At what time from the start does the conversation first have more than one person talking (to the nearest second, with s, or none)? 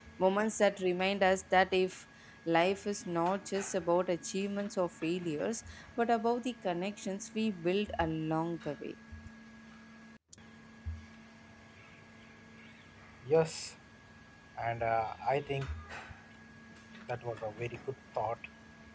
none